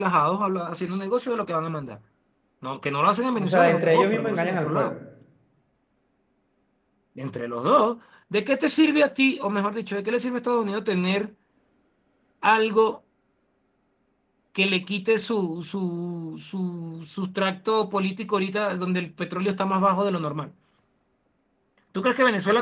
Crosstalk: present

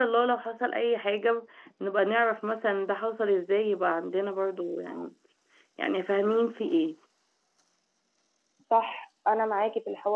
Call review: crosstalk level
none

